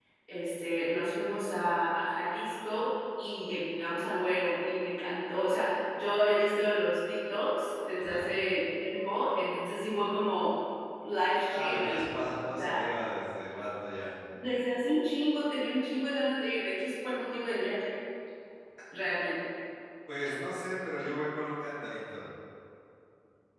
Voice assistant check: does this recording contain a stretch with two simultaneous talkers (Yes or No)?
Yes